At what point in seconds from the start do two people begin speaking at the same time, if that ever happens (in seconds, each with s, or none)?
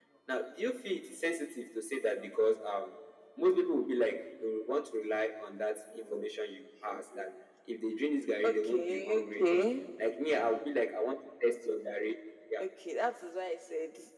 8.4 s